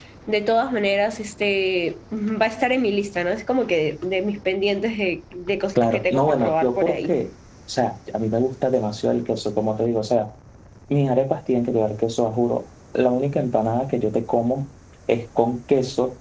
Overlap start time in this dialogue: 5.8 s

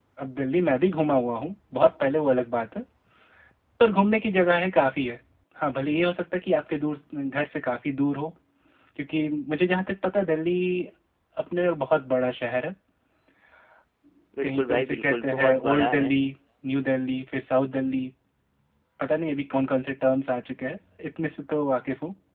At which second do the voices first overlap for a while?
14.4 s

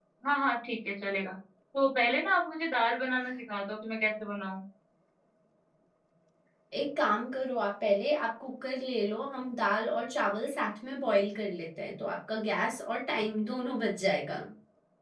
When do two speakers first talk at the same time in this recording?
none

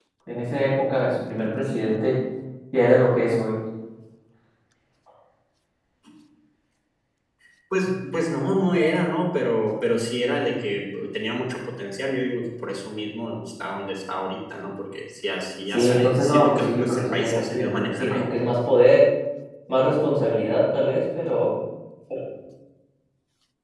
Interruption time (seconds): 15.7 s

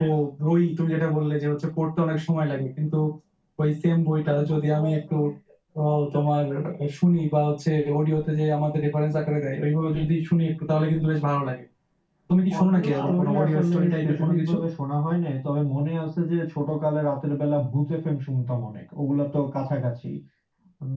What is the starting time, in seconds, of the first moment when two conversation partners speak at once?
12.6 s

